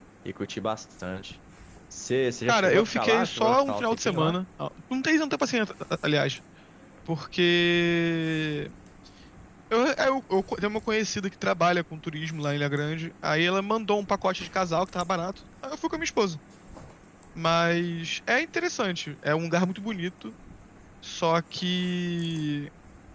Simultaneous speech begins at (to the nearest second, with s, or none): 2 s